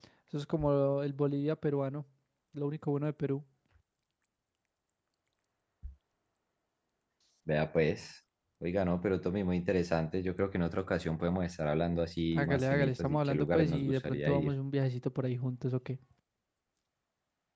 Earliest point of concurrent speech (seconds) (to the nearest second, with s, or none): 12 s